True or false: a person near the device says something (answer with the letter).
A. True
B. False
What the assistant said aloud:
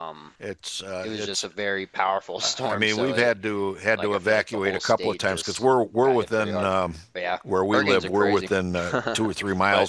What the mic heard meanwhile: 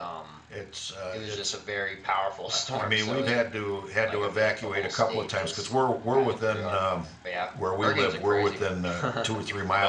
B